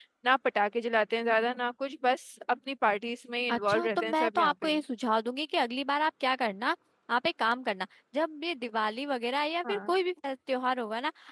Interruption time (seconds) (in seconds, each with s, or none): 3.5 s